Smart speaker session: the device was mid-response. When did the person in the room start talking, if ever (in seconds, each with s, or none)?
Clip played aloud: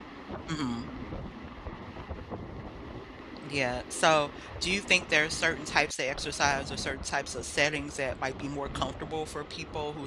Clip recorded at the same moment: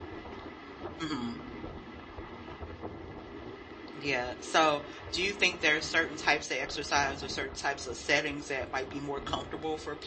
none